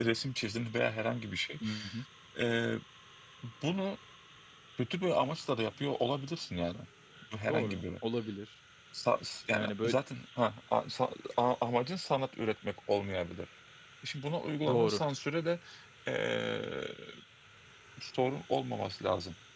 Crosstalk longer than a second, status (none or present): none